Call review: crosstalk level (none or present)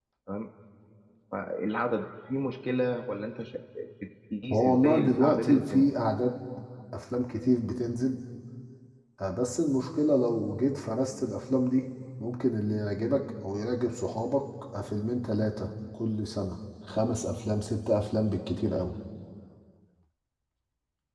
present